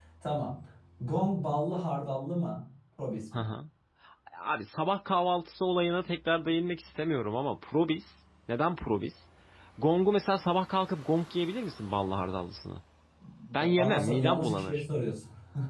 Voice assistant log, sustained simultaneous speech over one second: present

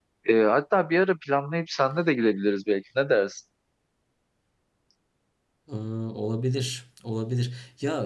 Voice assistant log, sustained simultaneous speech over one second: none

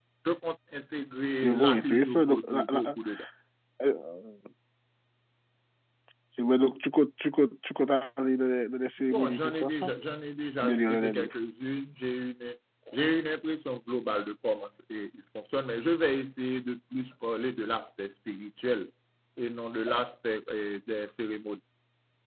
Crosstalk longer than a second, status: present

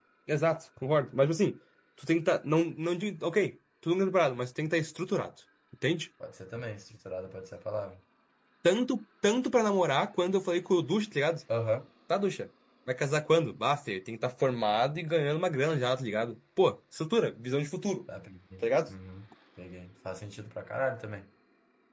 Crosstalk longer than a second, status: none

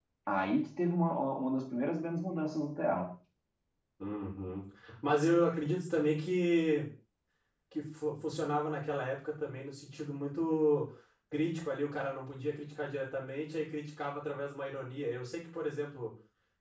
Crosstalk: none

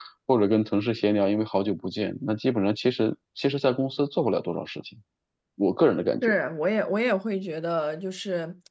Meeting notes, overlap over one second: none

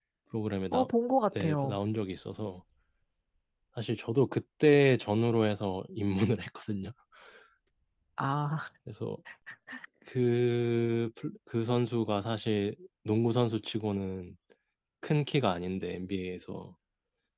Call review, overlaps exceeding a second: none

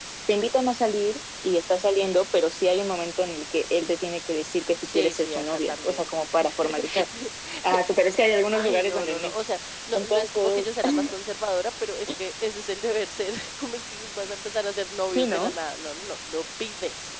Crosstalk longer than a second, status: present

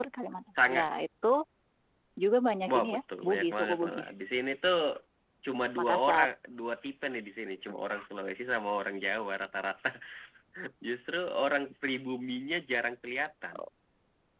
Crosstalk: present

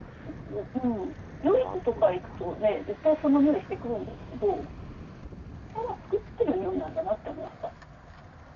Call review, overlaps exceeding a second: present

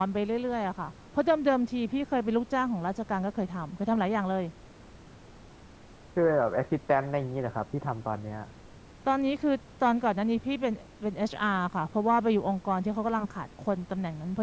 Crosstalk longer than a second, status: none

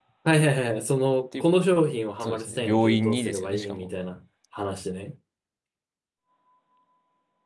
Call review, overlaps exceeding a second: present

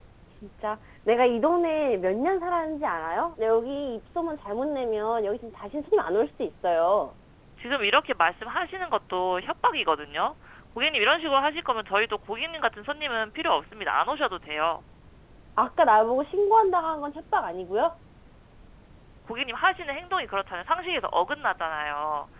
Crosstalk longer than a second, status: none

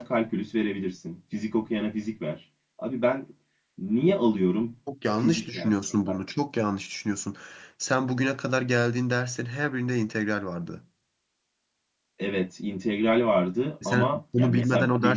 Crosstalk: present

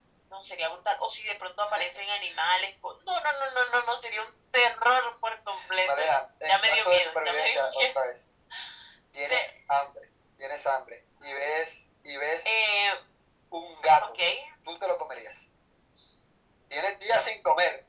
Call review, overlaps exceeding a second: present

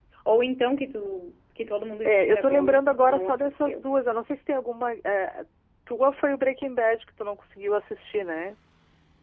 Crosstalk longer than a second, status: present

